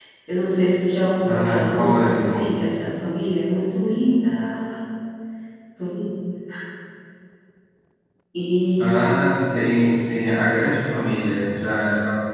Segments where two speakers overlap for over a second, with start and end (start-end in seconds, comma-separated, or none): 1.2-2.7, 8.8-10.1